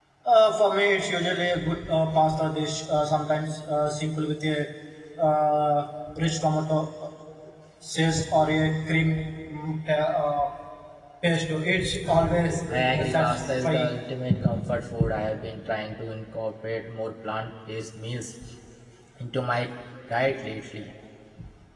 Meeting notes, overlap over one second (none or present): present